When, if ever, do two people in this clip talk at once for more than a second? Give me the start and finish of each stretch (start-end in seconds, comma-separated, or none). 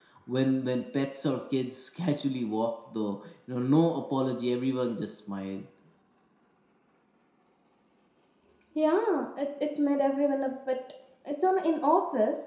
none